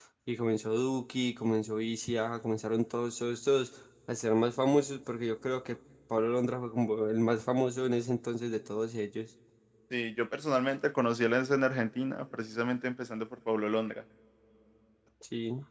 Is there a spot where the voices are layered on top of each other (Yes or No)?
No